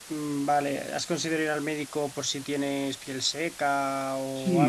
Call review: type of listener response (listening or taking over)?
taking over